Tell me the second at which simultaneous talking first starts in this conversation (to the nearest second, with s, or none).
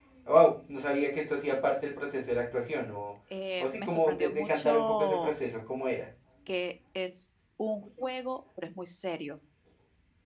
4 s